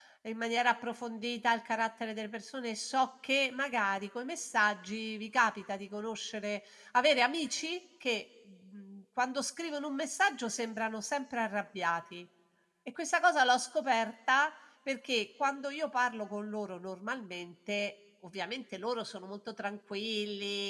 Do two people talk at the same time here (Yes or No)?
No